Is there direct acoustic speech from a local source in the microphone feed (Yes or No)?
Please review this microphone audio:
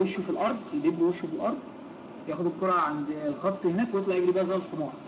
No